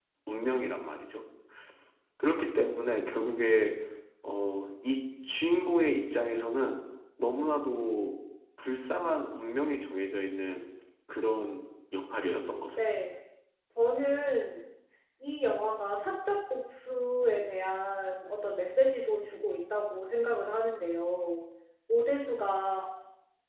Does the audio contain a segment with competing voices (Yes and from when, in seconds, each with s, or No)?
No